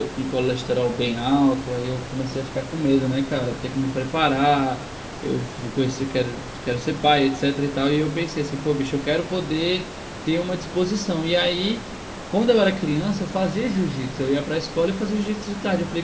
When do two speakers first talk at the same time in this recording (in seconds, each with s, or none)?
none